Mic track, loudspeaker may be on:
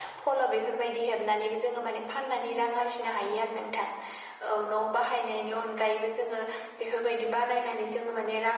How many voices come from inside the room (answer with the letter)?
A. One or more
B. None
B